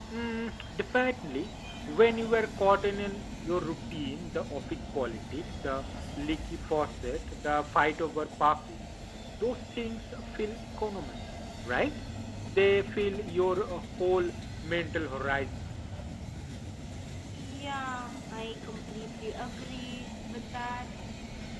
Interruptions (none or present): none